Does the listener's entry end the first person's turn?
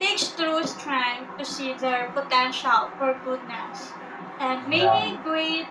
No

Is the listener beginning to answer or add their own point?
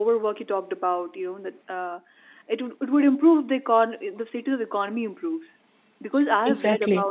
No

